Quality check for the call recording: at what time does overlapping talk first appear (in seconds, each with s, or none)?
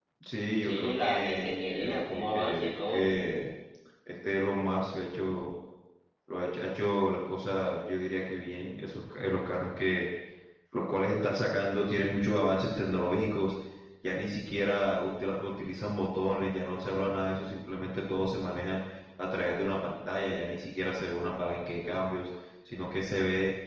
0.6 s